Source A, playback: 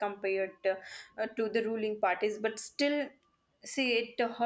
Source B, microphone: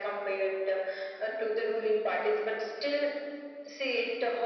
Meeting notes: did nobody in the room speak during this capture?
Yes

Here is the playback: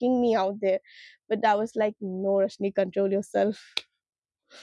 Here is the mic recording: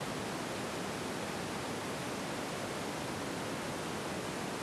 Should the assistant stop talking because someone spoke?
No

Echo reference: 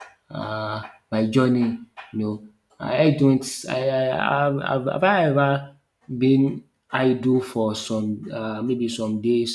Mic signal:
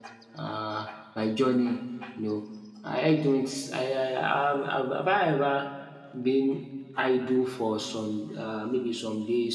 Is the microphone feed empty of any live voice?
Yes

